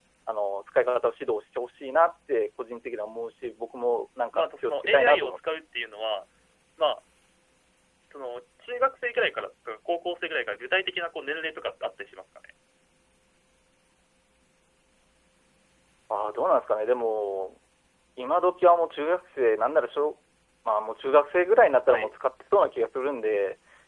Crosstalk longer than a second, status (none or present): present